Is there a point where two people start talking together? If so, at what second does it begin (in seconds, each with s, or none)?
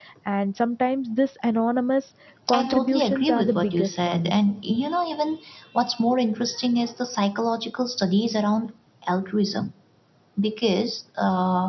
2.5 s